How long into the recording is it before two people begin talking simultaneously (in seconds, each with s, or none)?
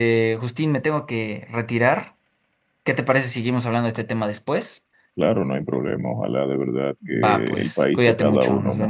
7.0 s